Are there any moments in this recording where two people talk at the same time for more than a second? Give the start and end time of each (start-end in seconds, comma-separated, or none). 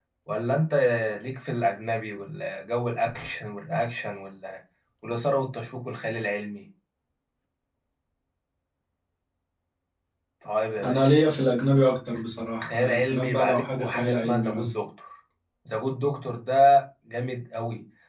12.6-14.7